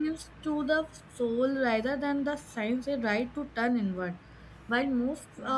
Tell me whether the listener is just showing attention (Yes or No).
Yes